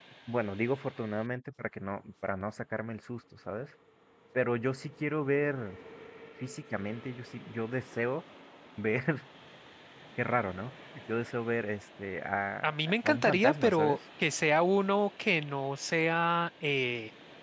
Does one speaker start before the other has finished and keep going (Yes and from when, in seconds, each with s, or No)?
Yes, from 12.6 s